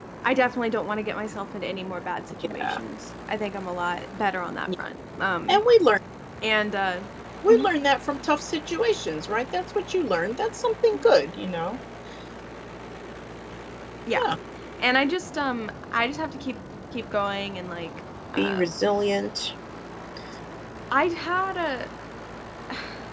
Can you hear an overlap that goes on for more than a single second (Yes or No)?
No